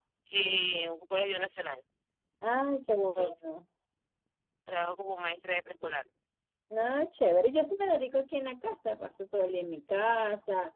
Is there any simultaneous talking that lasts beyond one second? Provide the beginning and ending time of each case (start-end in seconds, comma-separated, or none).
none